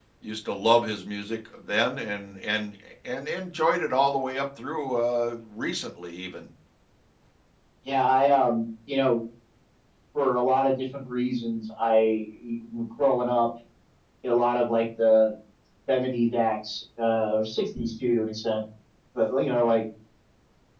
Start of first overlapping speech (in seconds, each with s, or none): none